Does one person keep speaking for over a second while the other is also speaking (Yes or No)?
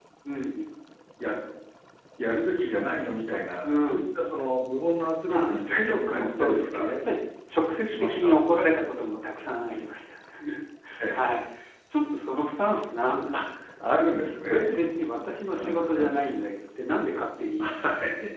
Yes